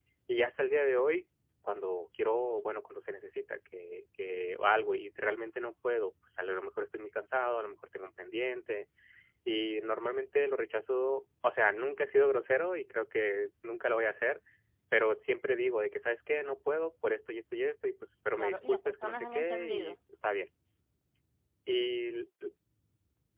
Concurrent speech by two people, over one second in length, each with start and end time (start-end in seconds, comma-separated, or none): 18.4-20.0